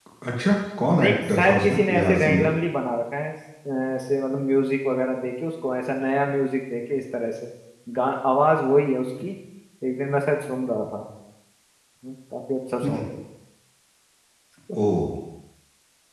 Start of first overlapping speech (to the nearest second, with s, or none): 1 s